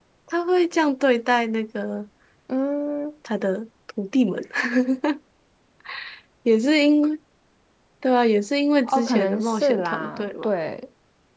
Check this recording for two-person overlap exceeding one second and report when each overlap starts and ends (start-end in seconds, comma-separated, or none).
8.8-10.5